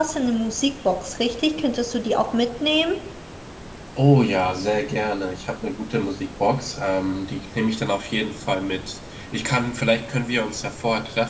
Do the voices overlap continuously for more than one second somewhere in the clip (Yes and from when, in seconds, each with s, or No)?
No